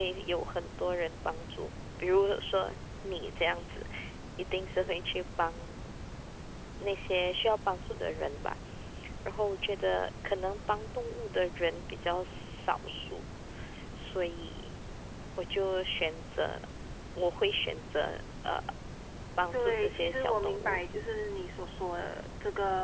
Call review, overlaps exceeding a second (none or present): present